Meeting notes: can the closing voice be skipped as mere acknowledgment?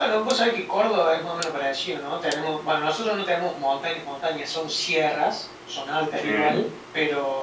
Yes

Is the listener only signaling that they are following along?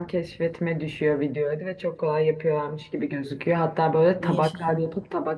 Yes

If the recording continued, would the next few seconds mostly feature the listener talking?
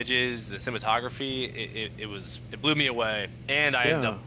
No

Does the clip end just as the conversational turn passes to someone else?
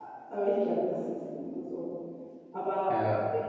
No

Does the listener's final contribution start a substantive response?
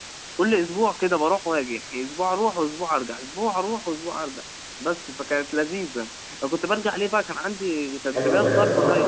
Yes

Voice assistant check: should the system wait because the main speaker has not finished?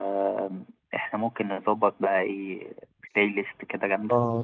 No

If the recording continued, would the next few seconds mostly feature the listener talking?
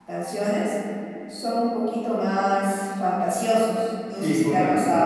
Yes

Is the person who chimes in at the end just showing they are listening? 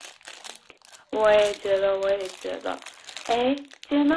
Yes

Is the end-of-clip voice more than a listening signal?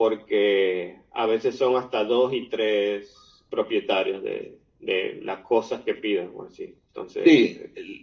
Yes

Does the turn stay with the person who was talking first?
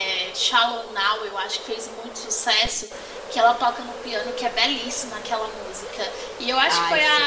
Yes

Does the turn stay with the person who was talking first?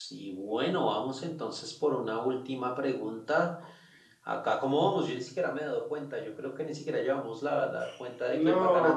Yes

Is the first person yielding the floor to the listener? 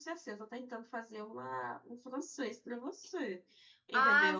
Yes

